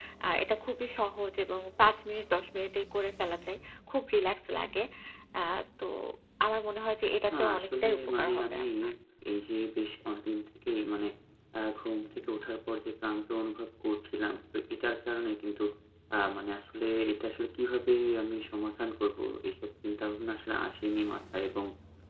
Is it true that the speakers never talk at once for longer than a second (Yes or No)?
No